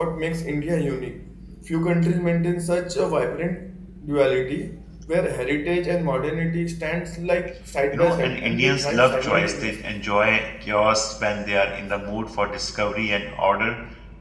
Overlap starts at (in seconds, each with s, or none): 7.9 s